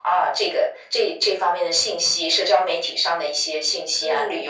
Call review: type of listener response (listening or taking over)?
listening